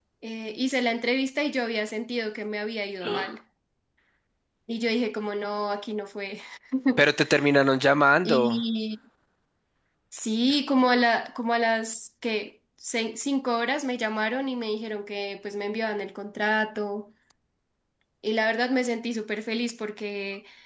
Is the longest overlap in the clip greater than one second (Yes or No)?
No